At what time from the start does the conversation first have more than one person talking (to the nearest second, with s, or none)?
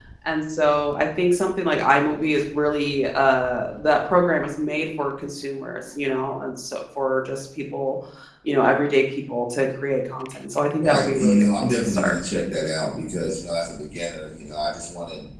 11 s